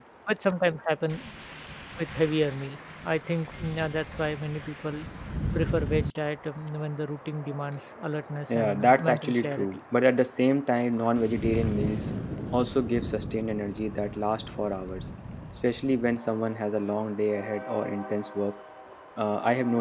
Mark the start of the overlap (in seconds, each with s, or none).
8.5 s